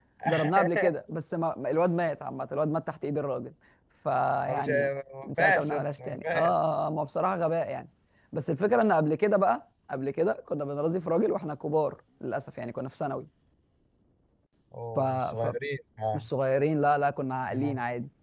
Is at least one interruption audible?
Yes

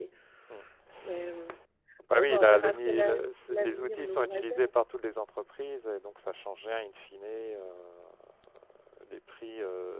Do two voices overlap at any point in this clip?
Yes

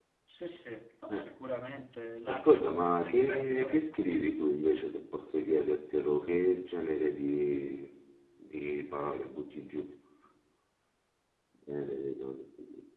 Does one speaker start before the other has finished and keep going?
Yes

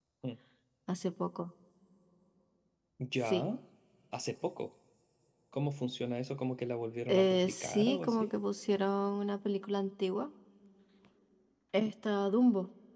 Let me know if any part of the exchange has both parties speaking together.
Yes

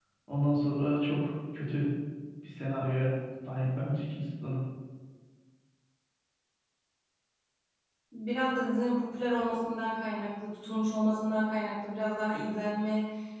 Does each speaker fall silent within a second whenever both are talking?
Yes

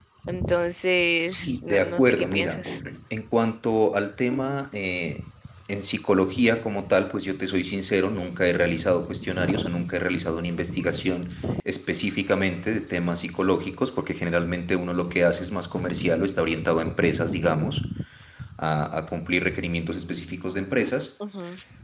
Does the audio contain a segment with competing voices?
Yes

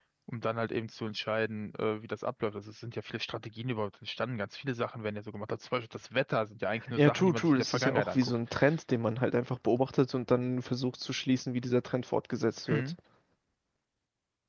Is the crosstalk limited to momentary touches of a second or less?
No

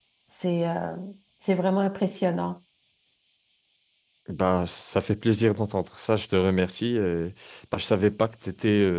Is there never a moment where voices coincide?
Yes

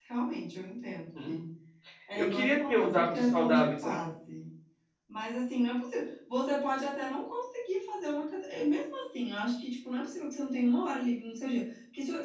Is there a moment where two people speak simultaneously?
Yes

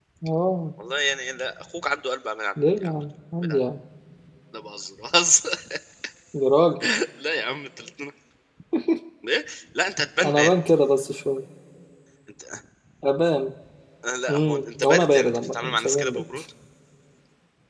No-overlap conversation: No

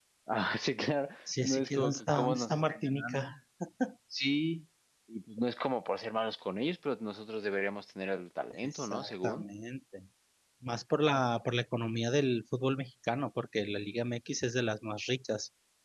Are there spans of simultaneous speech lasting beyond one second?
Yes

